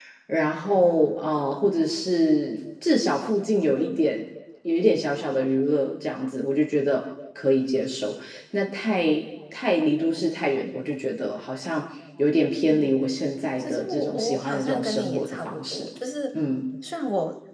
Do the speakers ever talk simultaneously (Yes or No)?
Yes